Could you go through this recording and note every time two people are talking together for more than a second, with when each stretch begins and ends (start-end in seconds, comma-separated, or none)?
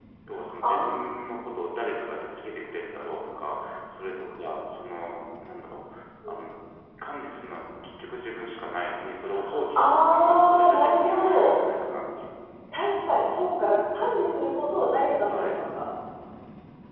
9.8-11.6